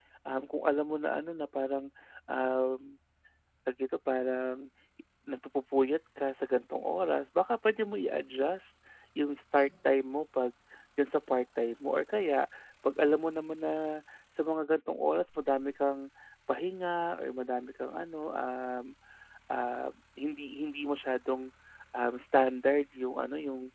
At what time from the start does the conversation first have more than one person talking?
none

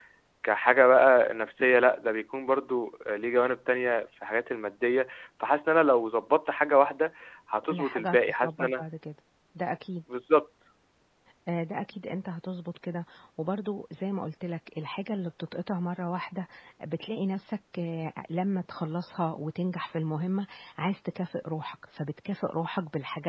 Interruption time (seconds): 7.7 s

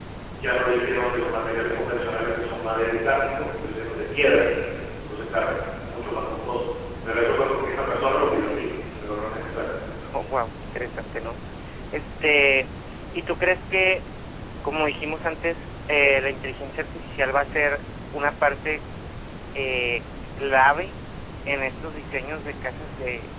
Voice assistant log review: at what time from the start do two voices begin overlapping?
none

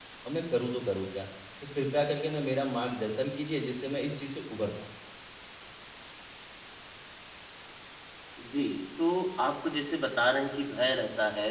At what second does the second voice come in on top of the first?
none

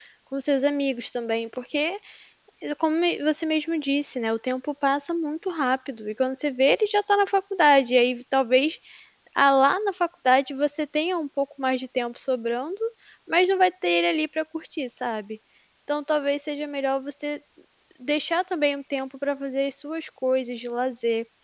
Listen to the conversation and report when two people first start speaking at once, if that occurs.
none

